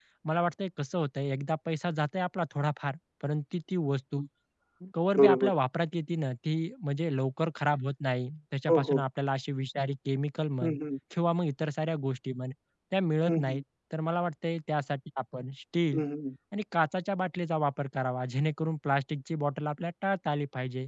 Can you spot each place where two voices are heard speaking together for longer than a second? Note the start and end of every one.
none

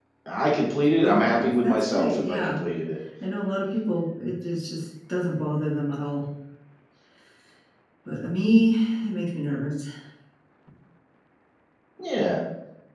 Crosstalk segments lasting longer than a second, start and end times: 1.0-2.6

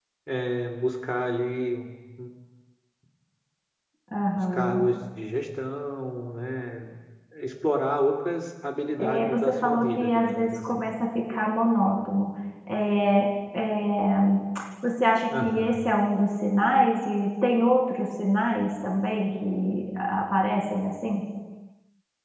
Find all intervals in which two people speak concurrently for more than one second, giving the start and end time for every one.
9.0-10.9

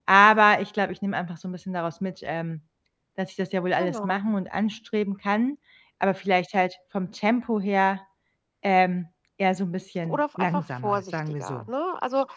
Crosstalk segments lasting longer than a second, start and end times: 10.1-11.7

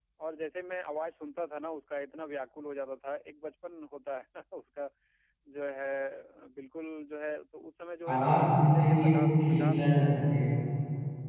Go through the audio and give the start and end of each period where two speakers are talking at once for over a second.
8.1-9.8

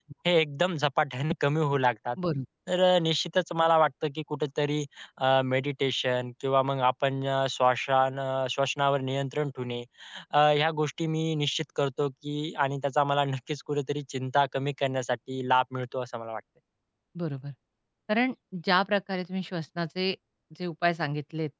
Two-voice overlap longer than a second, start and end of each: none

